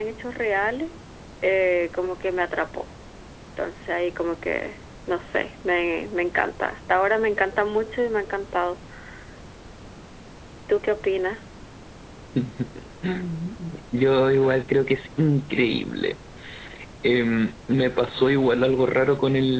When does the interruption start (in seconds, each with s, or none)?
none